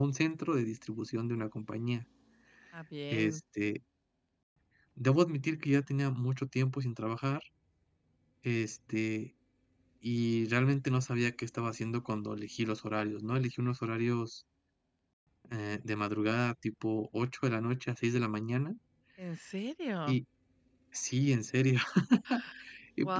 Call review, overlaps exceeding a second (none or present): none